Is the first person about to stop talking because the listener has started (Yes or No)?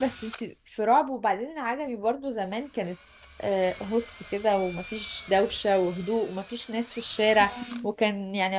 No